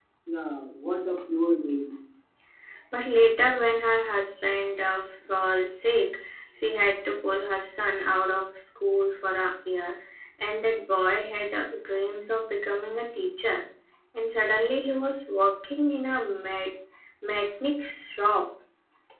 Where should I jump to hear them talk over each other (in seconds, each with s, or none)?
none